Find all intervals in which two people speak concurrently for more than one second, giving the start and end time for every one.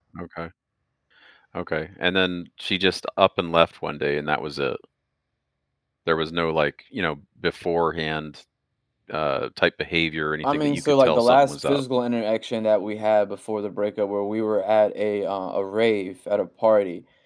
10.4-11.8

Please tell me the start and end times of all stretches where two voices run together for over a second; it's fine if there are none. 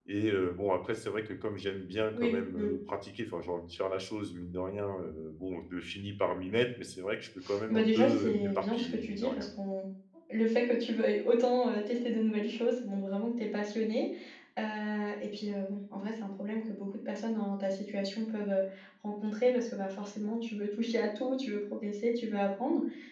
7.7-9.5

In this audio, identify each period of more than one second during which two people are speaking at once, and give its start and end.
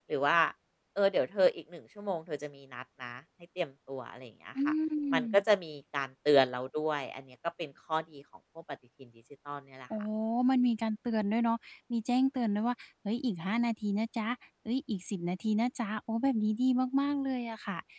none

